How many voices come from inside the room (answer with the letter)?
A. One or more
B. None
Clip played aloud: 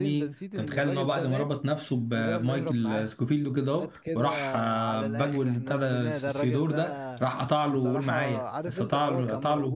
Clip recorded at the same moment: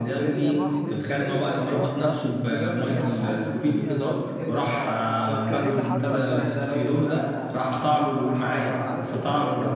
A